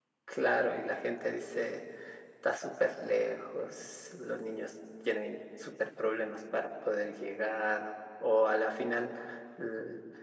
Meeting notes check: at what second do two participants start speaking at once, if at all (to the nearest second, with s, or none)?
none